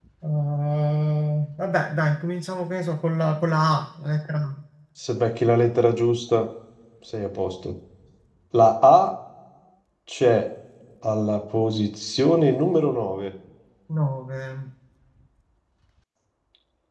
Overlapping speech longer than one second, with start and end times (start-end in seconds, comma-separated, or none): none